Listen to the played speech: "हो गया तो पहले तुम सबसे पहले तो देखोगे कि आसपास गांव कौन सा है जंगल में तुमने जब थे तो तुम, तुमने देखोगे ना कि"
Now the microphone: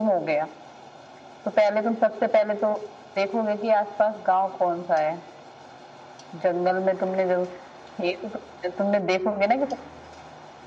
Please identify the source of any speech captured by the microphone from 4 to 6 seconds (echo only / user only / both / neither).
echo only